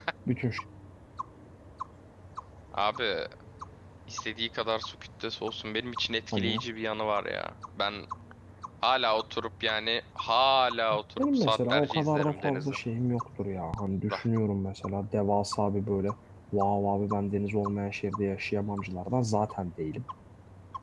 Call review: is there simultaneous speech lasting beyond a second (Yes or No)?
Yes